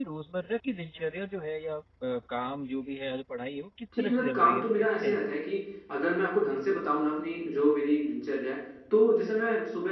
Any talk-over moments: Yes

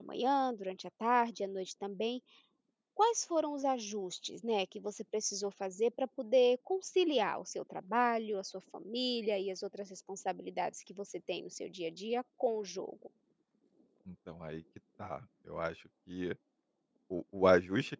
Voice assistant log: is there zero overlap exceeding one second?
Yes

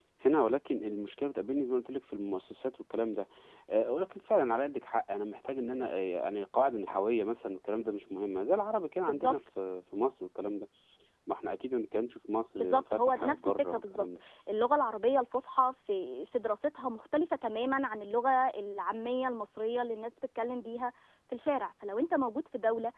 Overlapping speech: Yes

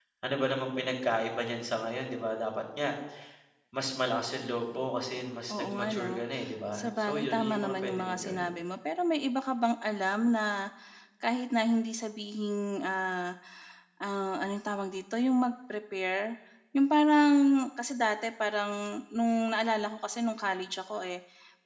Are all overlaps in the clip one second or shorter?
No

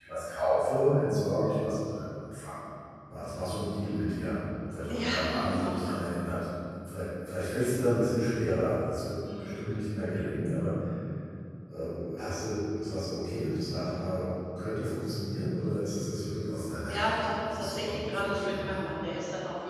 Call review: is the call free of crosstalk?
No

